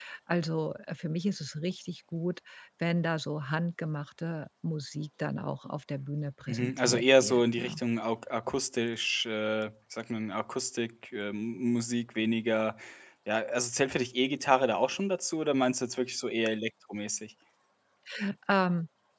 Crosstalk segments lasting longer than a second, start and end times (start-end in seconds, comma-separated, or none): 6.5-7.8